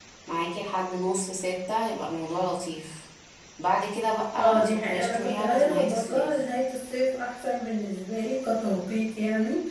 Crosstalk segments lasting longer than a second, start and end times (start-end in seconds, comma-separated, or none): 4.3-6.4